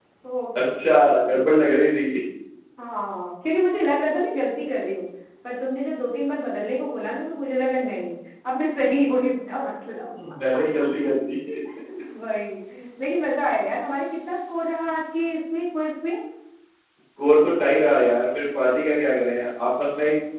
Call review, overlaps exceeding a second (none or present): none